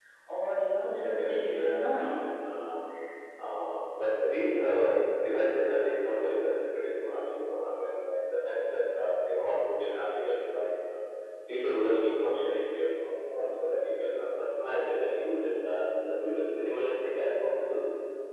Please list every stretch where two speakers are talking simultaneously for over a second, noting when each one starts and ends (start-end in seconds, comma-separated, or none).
1.0-2.2